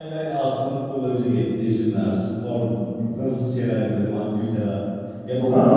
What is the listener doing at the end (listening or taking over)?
taking over